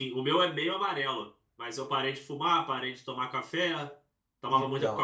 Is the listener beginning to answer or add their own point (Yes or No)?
No